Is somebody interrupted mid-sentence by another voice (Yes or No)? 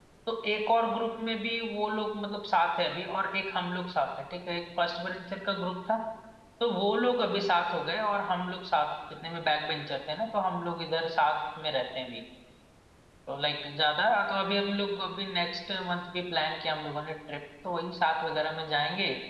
No